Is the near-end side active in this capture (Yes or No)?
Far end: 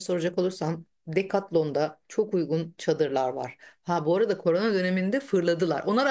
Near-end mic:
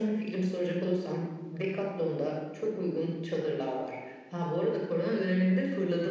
No